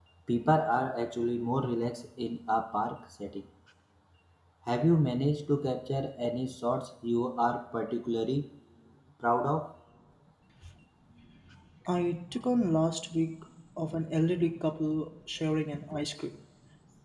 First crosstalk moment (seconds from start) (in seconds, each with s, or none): none